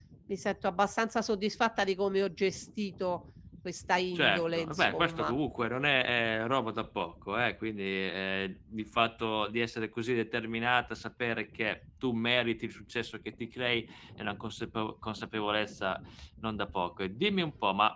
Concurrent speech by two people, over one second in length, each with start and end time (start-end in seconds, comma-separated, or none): 4.1-5.4